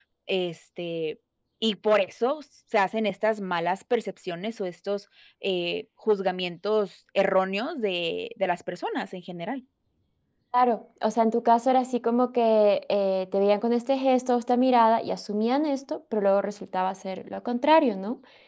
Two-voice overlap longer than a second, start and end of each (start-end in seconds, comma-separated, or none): none